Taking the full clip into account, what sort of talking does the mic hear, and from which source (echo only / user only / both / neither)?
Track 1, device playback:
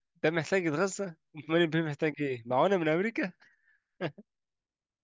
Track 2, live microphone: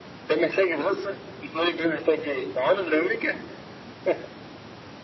echo only